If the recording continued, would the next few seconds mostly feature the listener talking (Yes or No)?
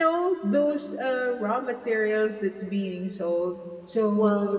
No